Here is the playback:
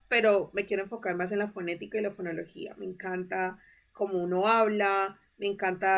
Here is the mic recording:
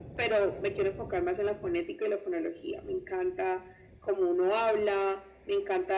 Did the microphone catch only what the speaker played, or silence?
Yes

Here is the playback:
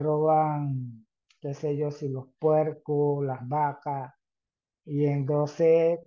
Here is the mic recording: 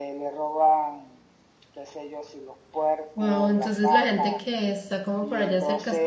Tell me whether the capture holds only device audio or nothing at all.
No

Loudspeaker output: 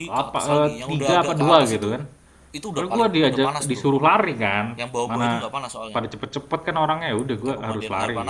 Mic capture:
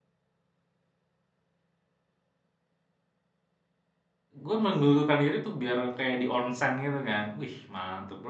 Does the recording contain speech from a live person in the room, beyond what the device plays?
Yes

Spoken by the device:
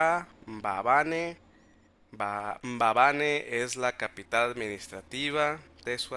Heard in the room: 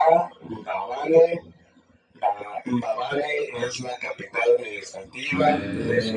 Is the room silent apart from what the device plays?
No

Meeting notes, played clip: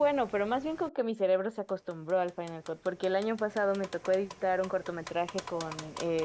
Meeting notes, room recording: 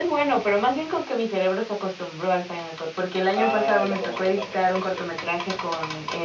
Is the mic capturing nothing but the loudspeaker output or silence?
No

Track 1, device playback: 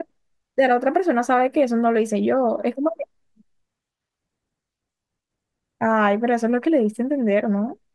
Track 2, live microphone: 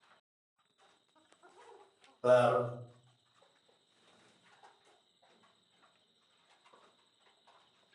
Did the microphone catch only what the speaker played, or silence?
No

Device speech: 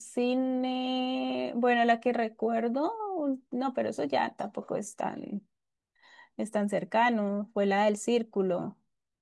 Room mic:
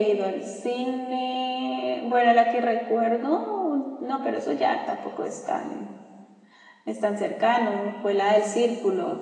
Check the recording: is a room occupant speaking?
No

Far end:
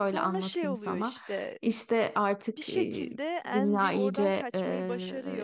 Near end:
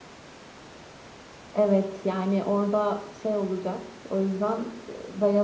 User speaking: Yes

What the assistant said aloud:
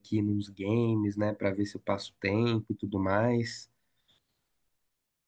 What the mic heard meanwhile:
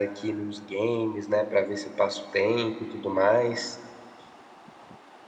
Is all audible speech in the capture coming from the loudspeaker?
Yes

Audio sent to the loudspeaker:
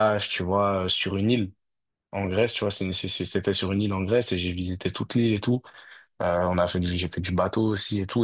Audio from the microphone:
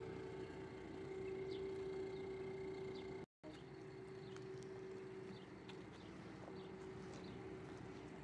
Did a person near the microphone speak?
No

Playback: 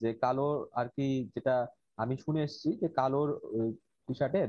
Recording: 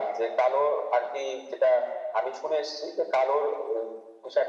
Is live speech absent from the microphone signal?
Yes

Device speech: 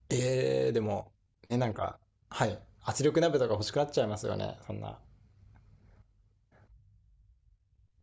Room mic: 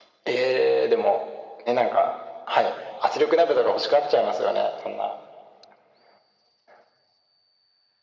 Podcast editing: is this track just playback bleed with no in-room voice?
Yes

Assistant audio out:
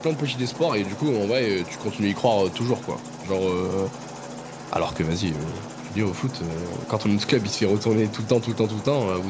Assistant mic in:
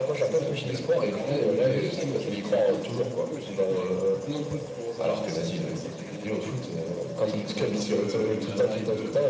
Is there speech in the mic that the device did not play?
Yes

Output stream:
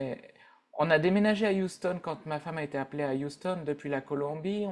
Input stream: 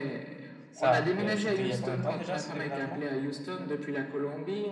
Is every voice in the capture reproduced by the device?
No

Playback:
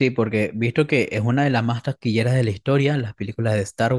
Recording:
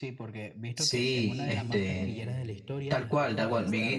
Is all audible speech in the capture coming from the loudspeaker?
No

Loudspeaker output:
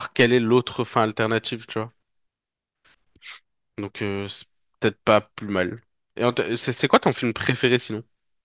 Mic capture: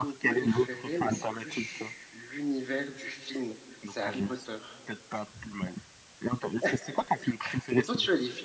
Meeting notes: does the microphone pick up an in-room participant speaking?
Yes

